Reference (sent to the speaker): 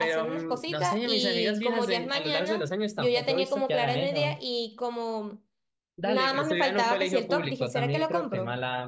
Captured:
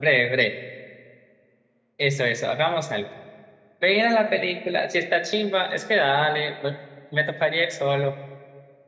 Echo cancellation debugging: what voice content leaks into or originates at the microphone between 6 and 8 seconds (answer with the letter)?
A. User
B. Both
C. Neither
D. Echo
A